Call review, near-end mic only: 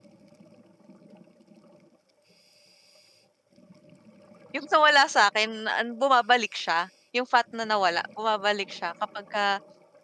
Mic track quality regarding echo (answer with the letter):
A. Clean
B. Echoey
A